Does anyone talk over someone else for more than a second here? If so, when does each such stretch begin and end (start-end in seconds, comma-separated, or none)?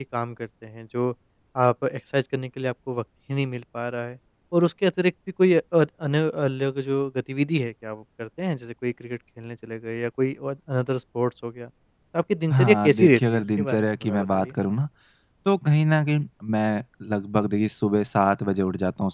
12.5-14.5